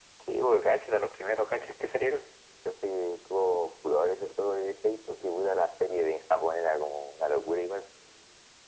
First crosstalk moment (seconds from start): none

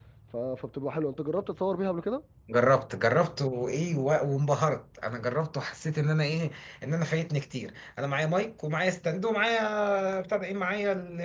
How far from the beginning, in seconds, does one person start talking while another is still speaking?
none

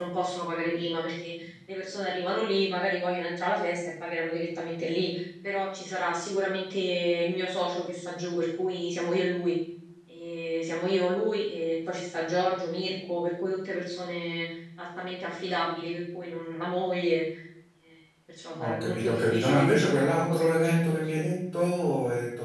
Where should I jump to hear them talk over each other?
18.6 s

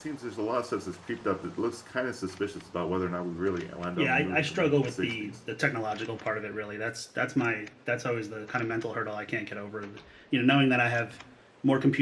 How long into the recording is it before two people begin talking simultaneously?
4.0 s

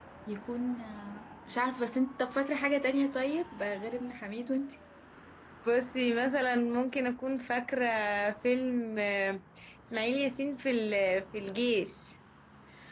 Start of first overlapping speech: none

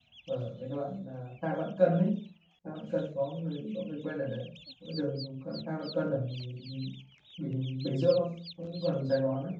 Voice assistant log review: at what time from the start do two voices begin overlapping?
none

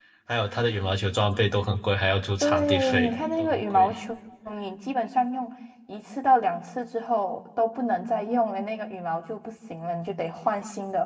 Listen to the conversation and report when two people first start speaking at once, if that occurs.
2.4 s

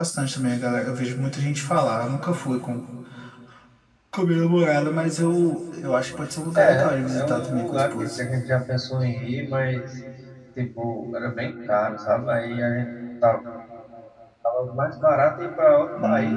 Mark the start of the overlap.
6.6 s

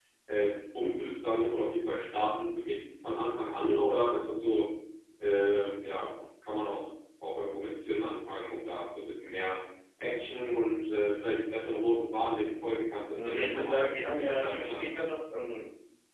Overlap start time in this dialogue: 13.1 s

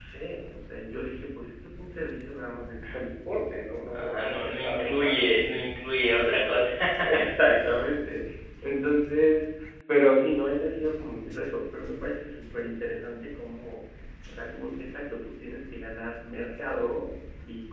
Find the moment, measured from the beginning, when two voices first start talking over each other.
3.9 s

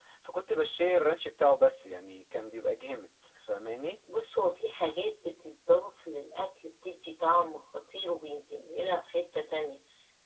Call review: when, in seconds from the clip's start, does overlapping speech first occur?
none

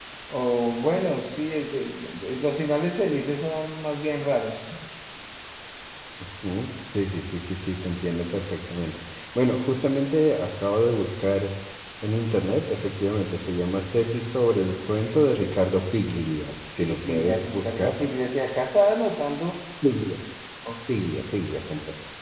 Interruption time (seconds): 16.8 s

